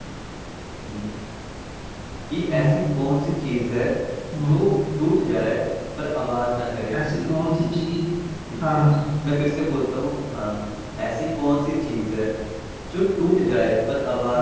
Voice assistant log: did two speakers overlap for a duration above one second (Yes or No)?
No